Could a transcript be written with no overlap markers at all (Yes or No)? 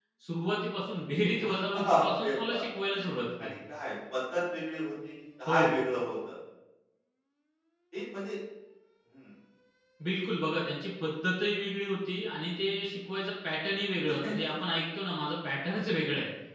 No